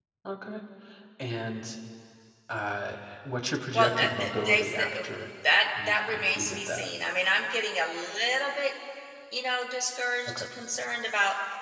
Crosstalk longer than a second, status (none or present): present